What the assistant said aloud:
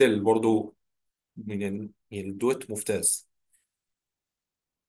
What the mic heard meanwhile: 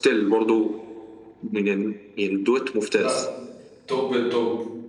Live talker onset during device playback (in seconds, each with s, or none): 2.9 s